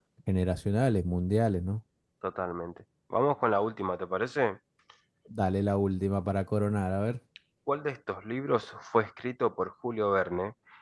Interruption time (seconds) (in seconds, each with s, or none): none